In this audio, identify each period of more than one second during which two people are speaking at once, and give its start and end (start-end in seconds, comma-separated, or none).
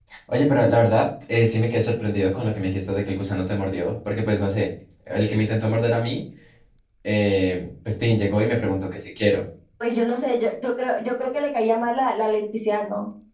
none